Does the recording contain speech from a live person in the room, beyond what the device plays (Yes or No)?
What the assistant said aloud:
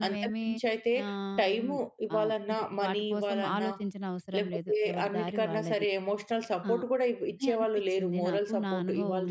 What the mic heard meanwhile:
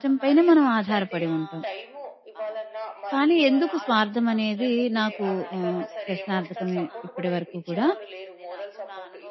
Yes